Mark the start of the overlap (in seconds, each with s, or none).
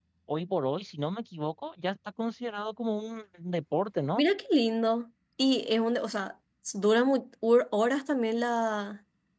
none